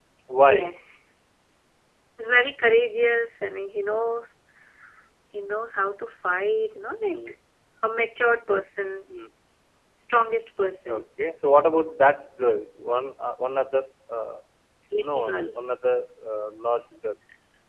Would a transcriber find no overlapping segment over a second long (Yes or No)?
Yes